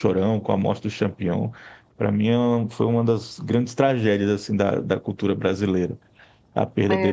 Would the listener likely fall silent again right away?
No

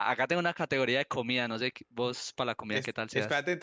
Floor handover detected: Yes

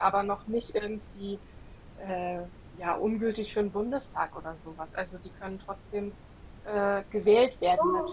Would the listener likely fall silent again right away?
Yes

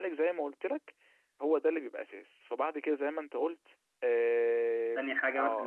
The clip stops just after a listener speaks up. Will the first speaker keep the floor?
No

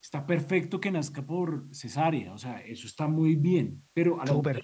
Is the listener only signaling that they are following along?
Yes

